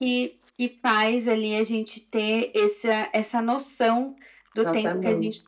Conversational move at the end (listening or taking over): listening